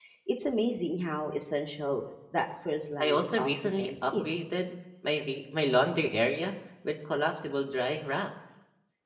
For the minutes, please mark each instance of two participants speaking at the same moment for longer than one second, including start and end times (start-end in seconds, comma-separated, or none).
3.0-4.4